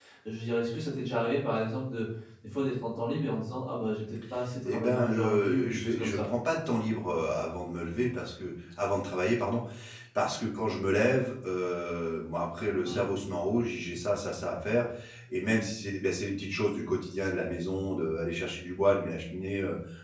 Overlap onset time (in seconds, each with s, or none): 4.6 s